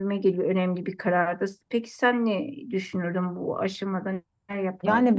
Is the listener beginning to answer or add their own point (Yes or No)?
Yes